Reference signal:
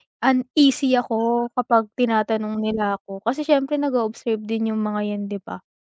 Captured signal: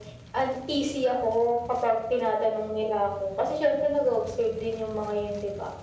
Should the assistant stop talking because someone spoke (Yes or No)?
No